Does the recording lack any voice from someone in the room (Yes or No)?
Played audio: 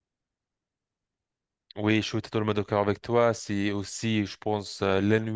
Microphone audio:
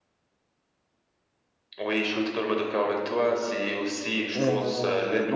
No